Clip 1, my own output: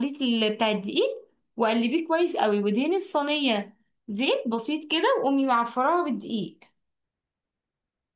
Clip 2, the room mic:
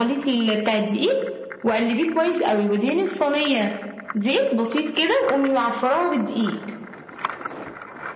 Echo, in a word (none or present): present